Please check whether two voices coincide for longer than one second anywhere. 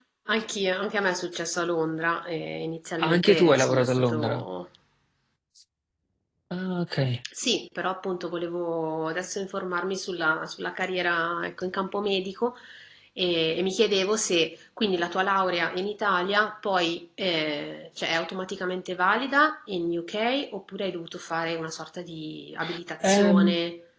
Yes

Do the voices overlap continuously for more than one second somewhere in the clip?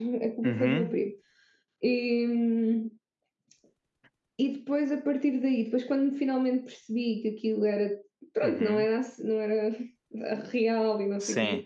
No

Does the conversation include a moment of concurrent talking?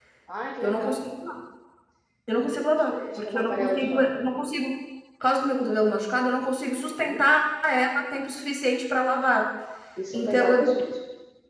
Yes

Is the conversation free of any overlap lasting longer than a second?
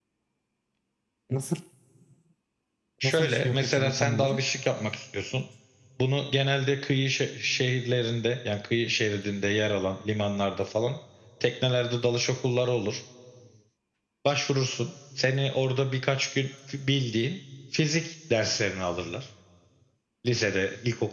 No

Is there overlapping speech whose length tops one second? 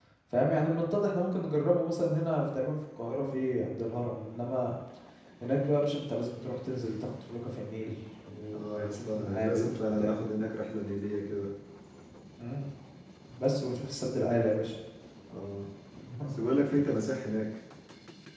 Yes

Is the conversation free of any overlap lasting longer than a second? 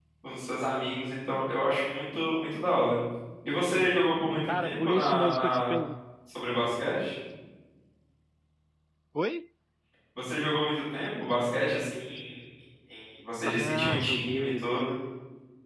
No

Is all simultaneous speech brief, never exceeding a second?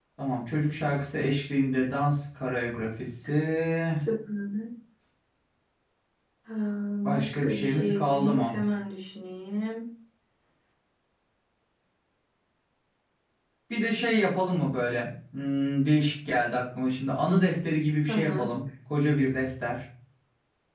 No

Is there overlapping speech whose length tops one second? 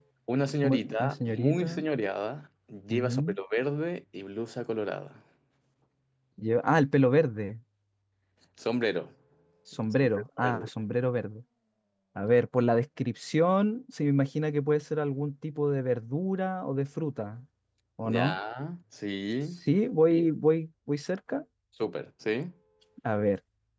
Yes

